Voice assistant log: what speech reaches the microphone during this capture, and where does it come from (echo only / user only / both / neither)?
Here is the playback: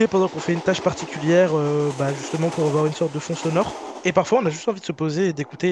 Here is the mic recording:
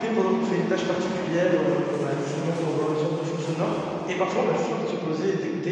echo only